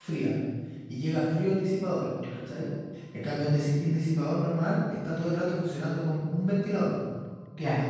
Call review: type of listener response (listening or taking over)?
listening